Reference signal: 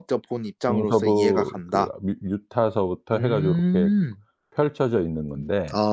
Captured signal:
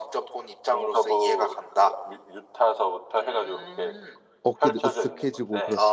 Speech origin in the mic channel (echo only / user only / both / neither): both